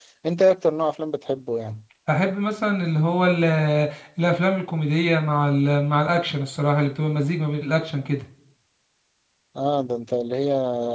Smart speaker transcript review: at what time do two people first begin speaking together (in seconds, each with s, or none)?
none